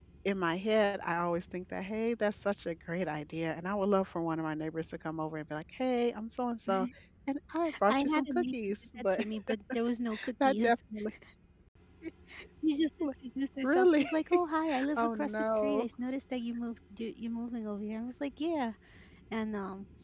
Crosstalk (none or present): present